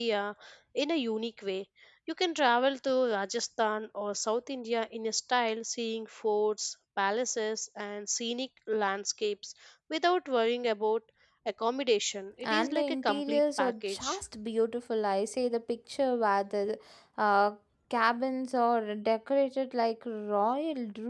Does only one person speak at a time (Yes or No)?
No